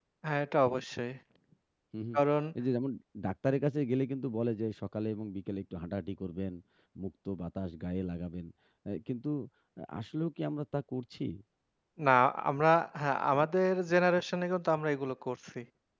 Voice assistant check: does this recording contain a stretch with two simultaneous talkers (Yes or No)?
No